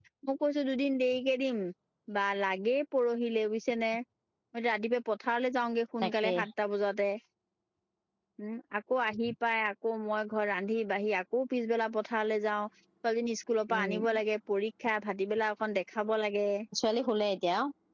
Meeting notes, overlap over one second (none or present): none